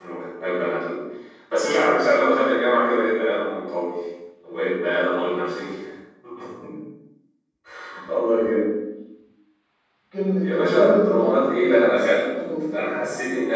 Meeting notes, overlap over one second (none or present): present